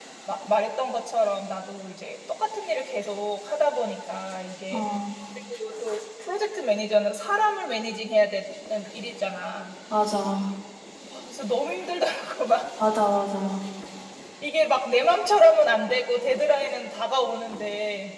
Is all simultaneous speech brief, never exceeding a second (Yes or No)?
Yes